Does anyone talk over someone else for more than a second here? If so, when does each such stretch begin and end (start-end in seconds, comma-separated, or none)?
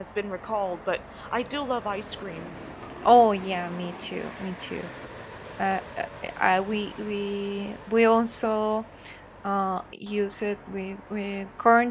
none